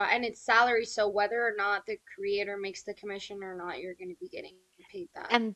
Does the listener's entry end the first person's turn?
Yes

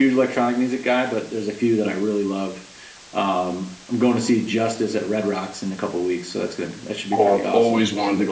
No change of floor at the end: No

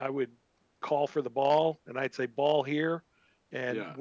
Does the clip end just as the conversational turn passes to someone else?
No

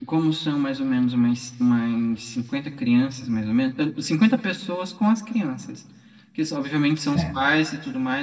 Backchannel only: Yes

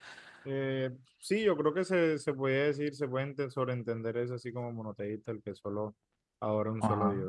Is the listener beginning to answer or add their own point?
Yes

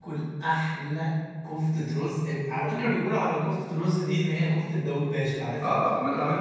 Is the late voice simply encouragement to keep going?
No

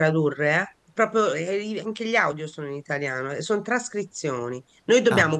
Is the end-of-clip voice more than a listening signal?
No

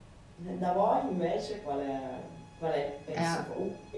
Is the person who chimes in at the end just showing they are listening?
Yes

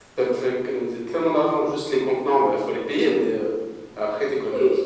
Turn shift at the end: Yes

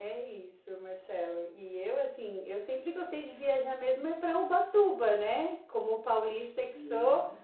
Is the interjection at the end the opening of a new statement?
No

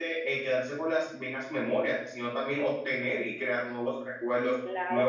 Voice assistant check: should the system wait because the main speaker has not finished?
Yes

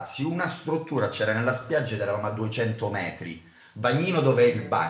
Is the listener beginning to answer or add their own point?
No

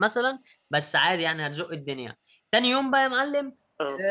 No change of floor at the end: Yes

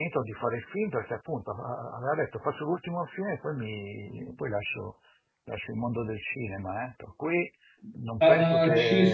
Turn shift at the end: Yes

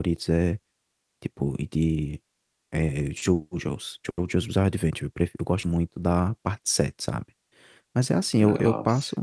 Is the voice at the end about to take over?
No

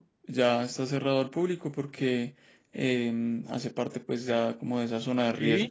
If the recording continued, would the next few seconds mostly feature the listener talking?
No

